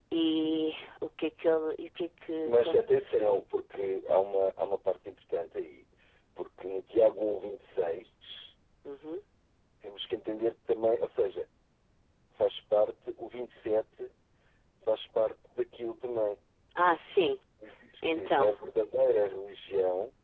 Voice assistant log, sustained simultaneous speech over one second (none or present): none